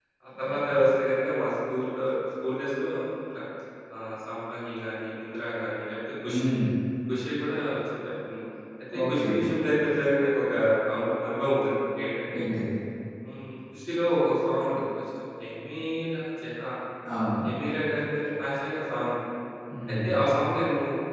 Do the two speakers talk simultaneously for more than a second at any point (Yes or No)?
No